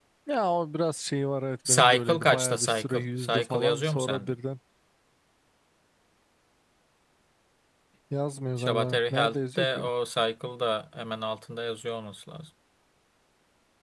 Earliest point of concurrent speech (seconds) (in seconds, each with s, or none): 1.7 s